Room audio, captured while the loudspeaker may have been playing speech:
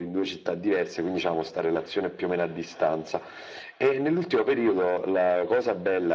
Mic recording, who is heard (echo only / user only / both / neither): echo only